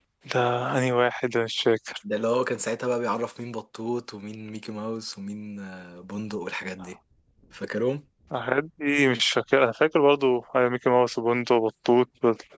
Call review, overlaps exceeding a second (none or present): none